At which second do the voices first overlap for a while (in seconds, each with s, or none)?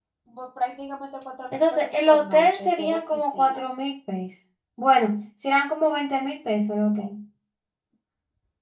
1.5 s